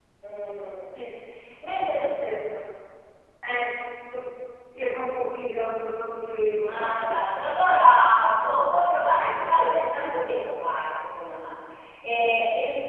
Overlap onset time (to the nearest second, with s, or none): 7 s